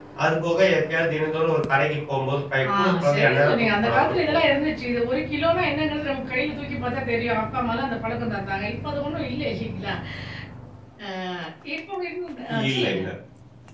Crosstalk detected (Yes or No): Yes